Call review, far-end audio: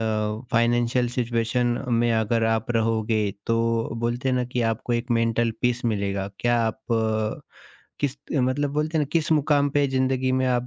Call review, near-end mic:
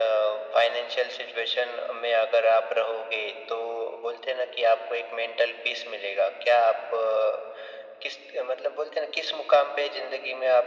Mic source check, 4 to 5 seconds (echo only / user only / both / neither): echo only